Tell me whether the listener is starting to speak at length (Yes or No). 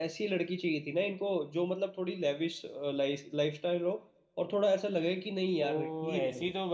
Yes